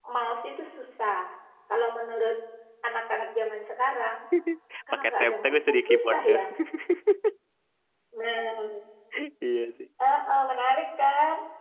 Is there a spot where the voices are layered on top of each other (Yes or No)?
Yes